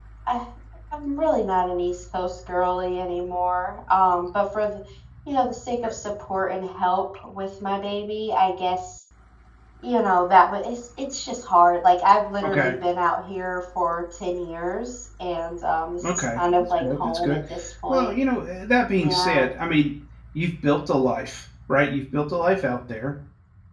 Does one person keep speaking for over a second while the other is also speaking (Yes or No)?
Yes